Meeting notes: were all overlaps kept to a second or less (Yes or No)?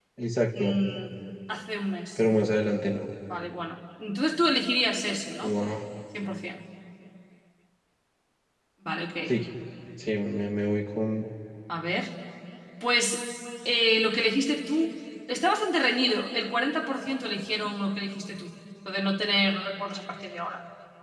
Yes